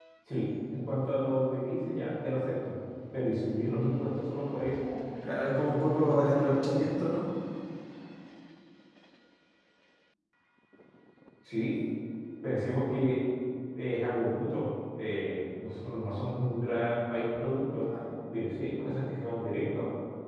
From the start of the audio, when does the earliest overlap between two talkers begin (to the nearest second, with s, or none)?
5 s